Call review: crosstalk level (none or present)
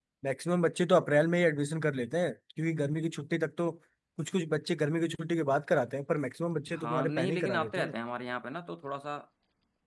present